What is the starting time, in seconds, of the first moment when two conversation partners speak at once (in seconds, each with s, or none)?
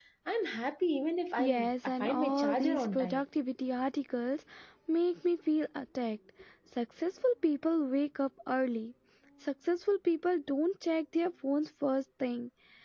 1.4 s